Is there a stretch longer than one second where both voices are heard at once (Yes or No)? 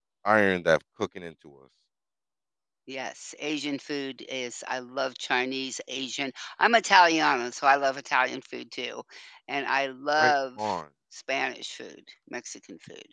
No